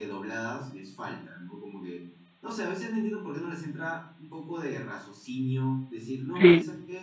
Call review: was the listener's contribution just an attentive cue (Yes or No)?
Yes